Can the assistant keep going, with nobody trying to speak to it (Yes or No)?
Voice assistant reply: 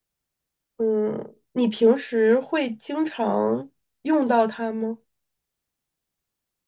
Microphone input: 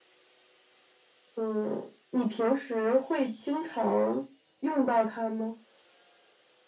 Yes